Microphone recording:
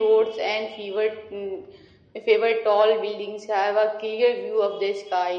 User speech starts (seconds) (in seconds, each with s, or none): none